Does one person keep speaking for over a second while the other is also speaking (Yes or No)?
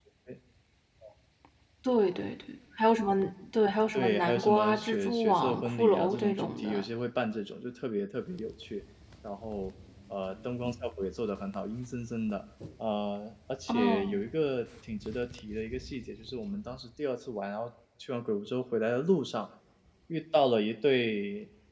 Yes